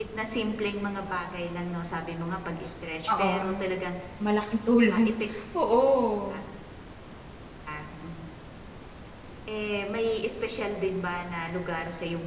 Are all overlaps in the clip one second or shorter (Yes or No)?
Yes